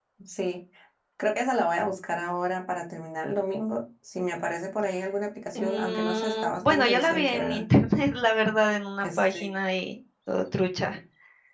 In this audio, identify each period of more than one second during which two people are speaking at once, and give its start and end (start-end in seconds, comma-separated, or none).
5.5-7.6